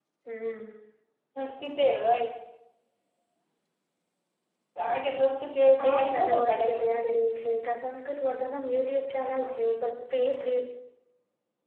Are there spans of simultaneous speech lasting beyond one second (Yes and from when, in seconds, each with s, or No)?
Yes, from 5.8 s